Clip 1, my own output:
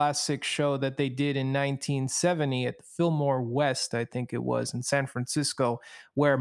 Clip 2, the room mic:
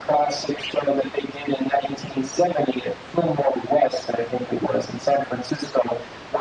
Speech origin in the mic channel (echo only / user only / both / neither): echo only